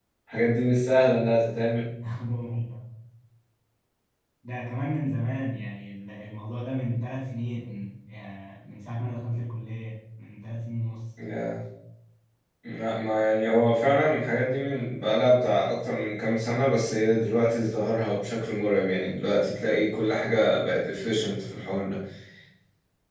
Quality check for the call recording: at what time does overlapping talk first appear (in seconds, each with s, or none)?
none